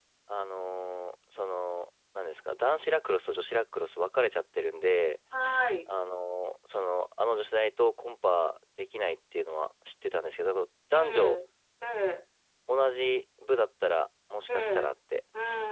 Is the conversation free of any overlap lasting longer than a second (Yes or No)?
Yes